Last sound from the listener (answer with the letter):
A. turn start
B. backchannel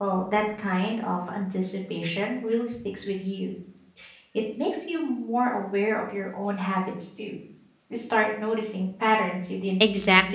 A